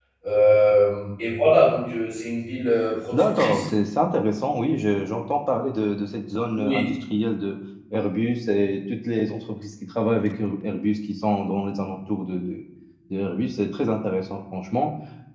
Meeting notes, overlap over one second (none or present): none